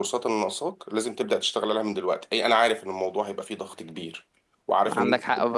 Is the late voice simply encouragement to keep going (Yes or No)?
No